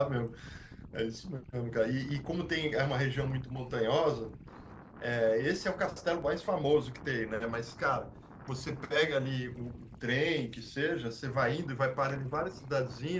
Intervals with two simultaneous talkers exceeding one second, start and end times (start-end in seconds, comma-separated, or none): none